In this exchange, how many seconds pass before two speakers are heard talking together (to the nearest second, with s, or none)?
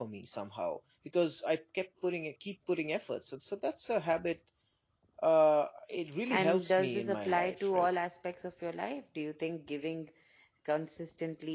6 s